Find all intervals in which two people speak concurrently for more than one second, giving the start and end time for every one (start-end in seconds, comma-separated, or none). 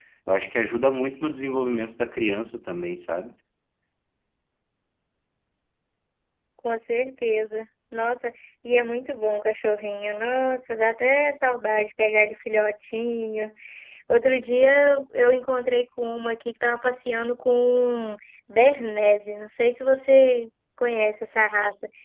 none